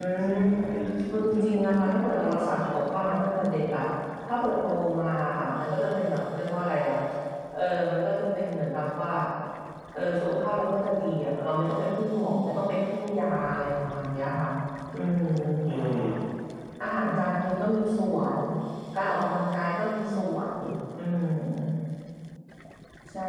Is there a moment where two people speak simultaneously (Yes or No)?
Yes